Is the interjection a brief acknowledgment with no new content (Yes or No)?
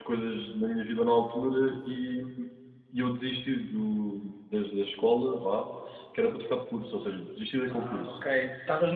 No